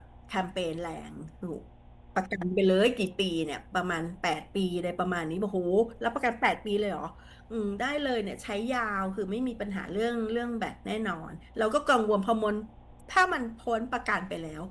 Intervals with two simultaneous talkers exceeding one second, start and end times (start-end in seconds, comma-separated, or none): none